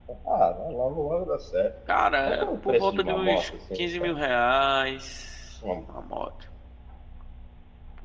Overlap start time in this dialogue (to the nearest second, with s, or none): 2 s